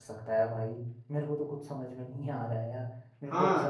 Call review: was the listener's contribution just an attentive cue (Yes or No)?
No